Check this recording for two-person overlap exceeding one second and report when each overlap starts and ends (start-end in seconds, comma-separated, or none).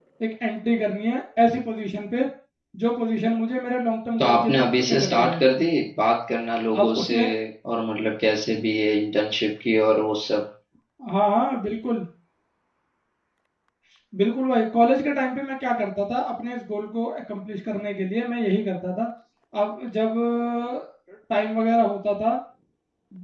4.2-5.4